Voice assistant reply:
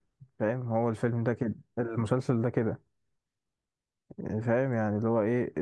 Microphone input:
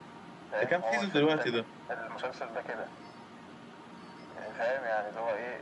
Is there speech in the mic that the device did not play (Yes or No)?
Yes